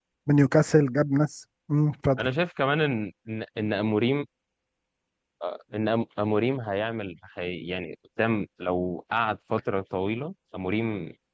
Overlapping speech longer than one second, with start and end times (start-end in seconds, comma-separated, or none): none